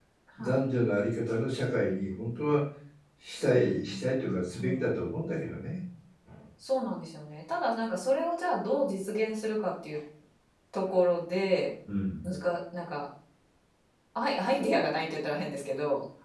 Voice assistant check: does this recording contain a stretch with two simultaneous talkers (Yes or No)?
Yes